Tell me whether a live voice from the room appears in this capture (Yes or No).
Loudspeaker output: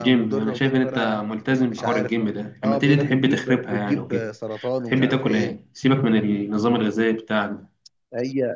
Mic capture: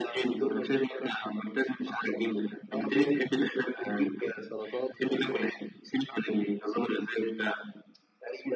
No